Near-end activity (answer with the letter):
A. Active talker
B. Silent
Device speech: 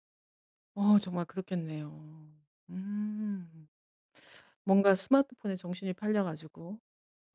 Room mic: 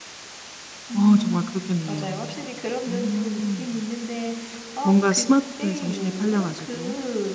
A